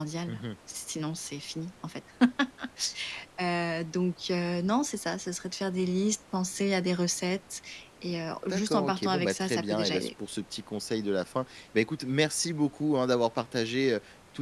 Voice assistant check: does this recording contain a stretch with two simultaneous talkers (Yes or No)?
Yes